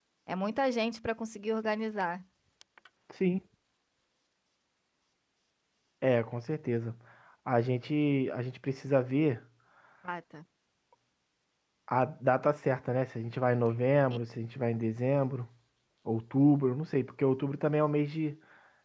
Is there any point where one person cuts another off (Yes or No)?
No